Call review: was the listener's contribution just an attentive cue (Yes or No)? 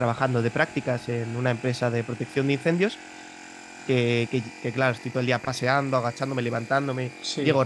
Yes